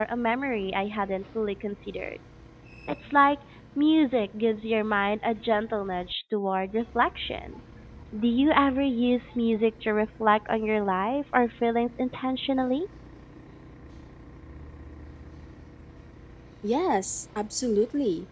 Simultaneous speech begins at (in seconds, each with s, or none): none